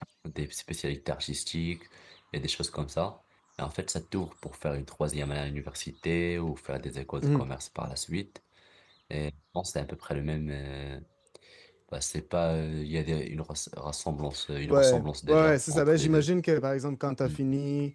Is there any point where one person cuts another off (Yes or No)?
Yes